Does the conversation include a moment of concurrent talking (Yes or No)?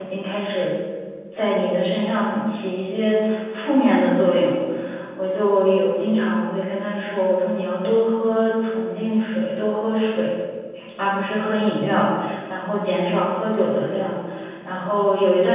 No